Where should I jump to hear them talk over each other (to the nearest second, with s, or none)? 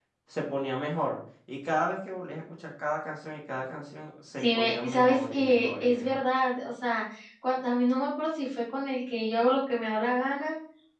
4 s